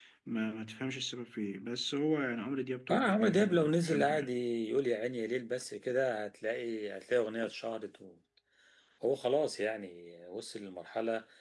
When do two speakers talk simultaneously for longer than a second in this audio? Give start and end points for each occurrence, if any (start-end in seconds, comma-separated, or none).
2.9-4.3